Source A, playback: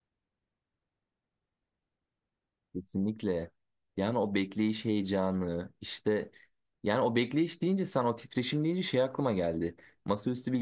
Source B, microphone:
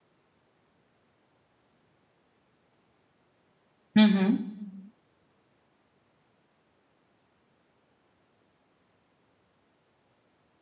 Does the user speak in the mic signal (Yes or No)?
Yes